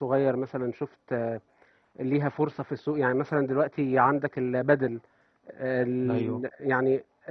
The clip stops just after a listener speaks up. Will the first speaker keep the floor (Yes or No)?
Yes